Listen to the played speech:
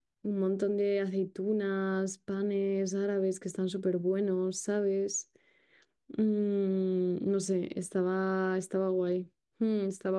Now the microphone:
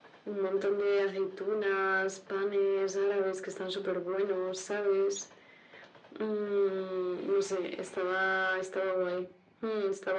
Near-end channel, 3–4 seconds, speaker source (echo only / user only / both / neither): echo only